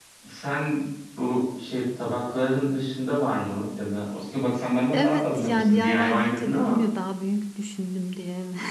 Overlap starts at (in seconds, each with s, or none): 4.9 s